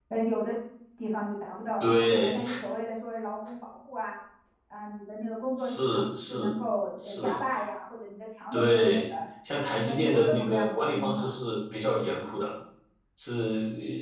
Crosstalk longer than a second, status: present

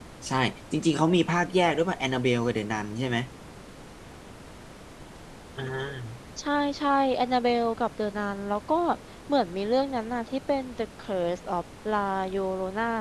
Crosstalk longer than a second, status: none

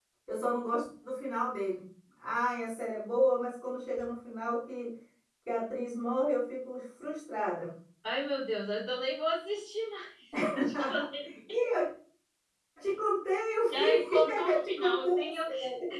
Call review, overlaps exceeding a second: present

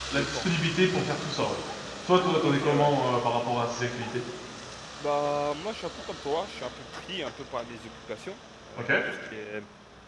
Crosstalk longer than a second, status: none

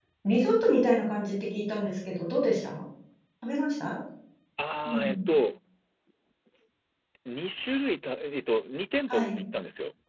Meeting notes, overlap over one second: none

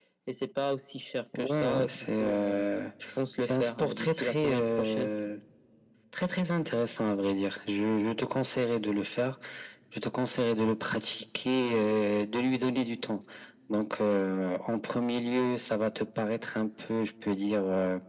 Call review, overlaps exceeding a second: present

